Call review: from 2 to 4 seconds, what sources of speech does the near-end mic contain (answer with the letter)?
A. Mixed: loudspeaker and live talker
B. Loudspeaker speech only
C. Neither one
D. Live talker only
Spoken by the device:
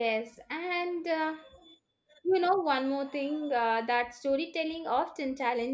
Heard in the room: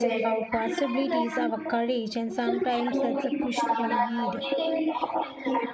A